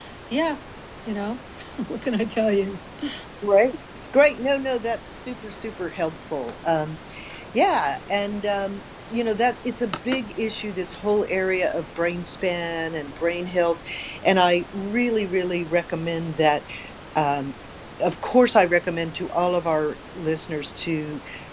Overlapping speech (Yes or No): No